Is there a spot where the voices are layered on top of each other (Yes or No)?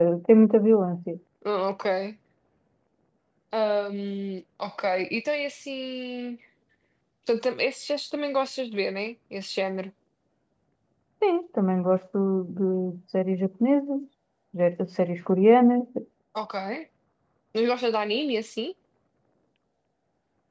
No